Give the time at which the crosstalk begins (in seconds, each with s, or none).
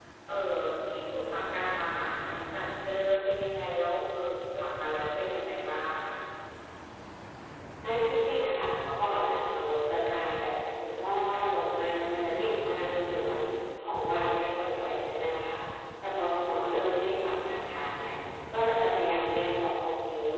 none